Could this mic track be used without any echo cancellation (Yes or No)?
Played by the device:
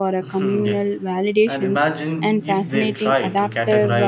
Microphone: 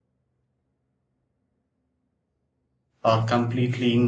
Yes